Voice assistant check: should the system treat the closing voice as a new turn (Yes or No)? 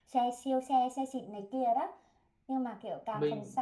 No